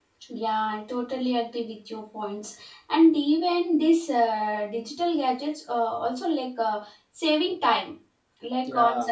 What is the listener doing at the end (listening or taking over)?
listening